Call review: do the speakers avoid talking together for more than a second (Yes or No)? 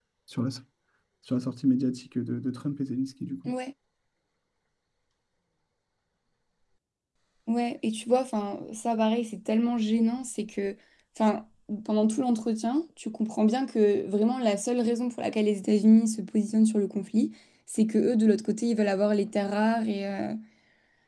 Yes